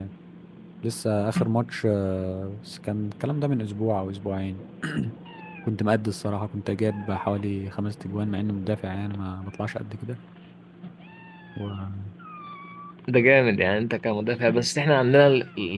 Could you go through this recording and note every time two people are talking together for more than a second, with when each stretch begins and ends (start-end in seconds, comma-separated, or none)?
none